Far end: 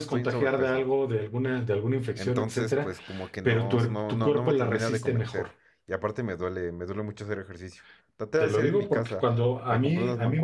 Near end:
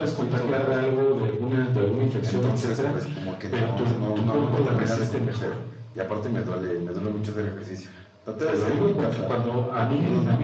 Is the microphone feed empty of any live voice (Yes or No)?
Yes